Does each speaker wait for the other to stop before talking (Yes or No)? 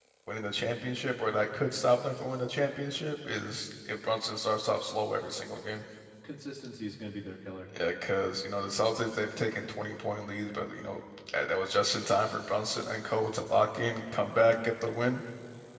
Yes